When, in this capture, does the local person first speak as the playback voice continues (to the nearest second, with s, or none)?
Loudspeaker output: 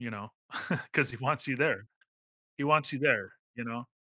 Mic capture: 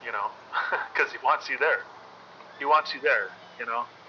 none